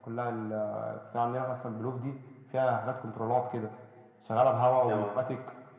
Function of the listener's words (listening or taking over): listening